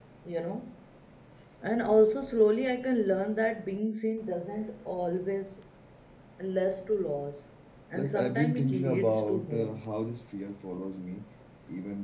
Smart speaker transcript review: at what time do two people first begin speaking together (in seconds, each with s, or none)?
7.9 s